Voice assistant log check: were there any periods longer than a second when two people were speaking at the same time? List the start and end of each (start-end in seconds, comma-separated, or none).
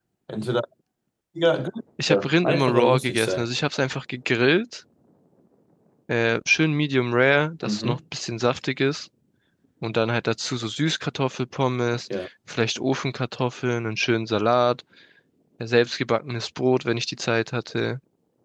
2.1-3.5